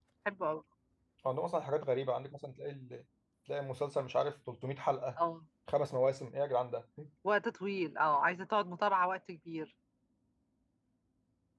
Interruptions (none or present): none